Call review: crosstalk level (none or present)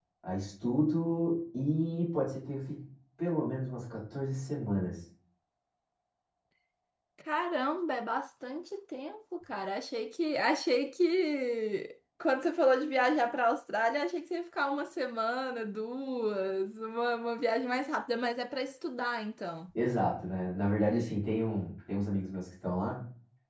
none